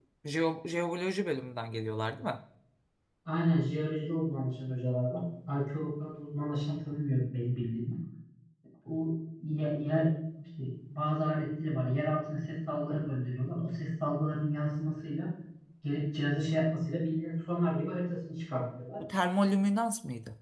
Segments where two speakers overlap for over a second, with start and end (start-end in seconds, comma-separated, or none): none